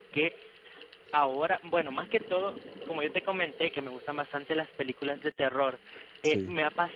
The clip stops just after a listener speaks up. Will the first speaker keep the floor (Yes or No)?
Yes